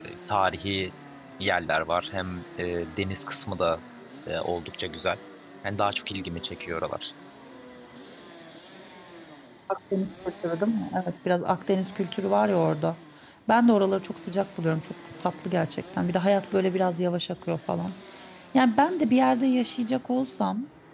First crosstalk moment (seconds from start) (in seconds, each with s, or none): none